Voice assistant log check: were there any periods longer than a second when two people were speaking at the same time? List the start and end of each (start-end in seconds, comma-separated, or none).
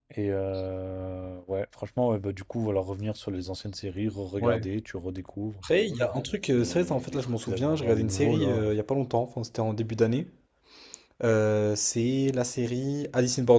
6.5-8.6